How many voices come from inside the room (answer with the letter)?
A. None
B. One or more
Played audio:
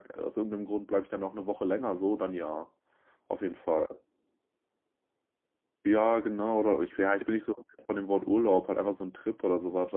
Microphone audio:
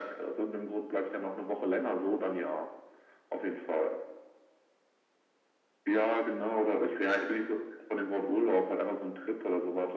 A